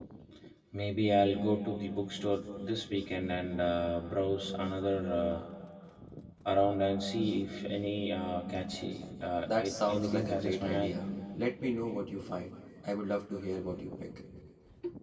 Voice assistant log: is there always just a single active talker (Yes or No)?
No